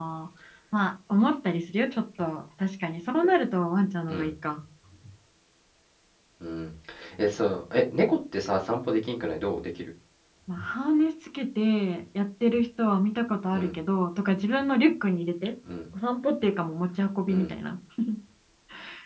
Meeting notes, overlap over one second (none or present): none